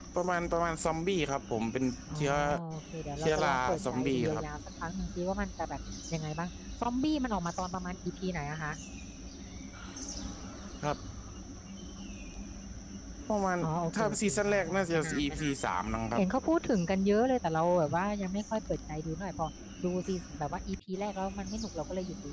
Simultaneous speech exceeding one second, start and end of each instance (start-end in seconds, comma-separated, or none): 3.2-4.4, 14.0-15.5